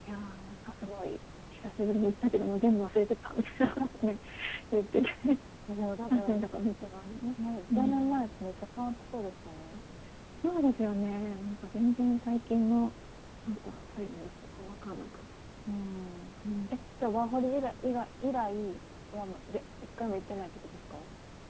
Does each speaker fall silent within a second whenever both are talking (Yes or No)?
Yes